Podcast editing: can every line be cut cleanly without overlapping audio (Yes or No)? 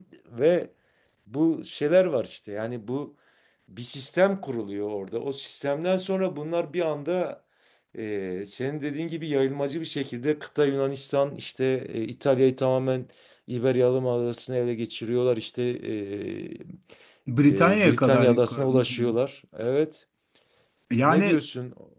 No